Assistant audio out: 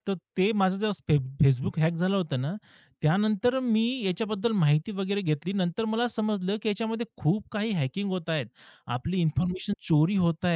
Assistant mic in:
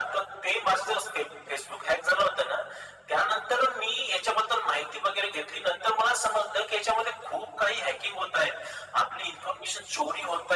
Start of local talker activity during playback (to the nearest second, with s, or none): none